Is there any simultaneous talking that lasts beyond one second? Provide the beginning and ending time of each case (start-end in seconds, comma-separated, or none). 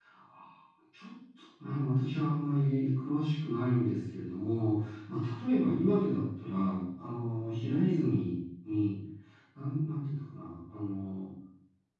none